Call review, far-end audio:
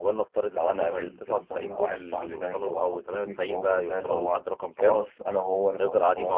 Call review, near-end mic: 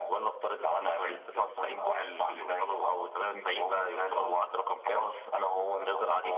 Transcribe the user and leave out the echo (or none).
none